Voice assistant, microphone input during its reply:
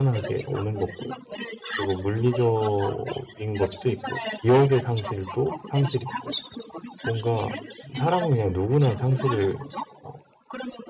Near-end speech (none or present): present